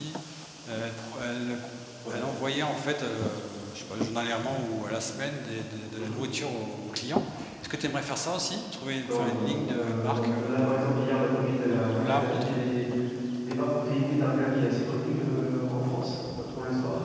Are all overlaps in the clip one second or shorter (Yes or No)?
No